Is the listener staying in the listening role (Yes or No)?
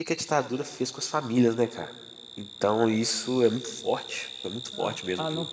No